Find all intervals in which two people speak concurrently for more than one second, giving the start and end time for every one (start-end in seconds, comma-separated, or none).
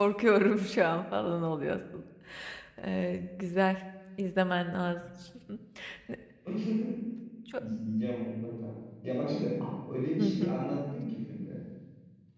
none